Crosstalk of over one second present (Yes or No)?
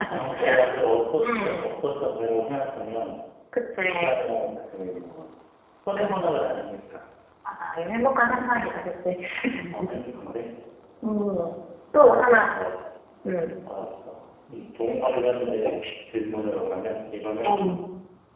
No